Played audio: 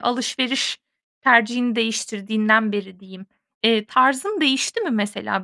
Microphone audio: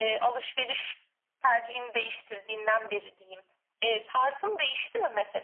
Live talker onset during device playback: none

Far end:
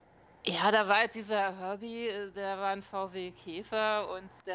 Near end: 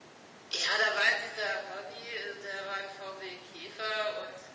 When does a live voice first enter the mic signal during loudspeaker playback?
none

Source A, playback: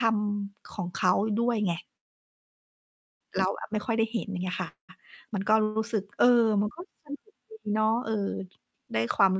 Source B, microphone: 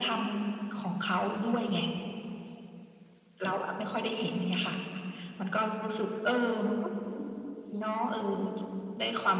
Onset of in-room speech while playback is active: none

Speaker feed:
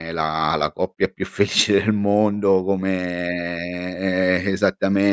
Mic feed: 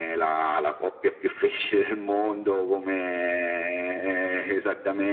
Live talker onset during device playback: none

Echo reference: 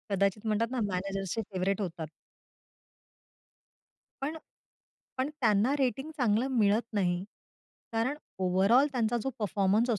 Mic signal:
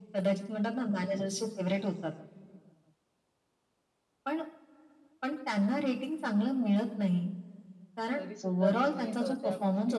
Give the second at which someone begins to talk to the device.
8.2 s

